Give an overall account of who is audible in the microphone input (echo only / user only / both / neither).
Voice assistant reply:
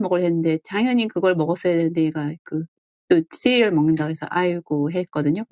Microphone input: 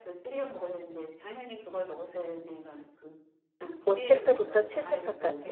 both